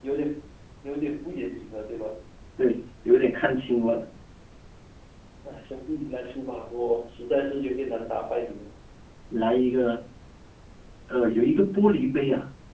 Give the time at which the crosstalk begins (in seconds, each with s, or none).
none